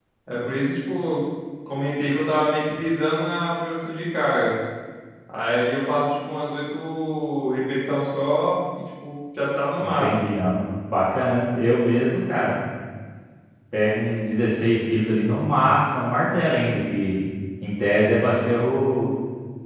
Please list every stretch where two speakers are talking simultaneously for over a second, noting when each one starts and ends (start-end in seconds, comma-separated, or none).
none